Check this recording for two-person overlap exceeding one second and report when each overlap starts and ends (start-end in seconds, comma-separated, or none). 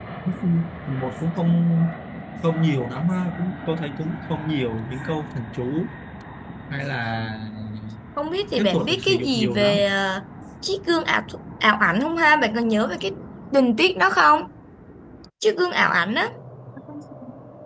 8.6-9.8